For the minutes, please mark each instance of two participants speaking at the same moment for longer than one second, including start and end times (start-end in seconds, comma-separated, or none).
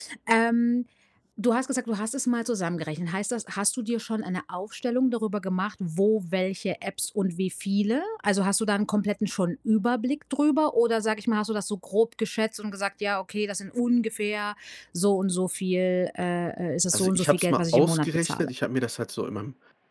16.9-18.5